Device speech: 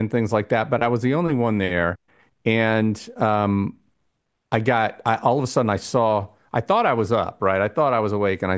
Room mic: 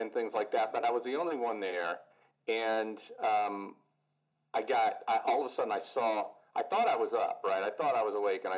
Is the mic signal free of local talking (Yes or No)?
Yes